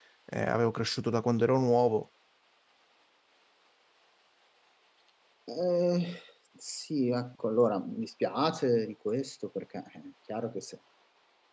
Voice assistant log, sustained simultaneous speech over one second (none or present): none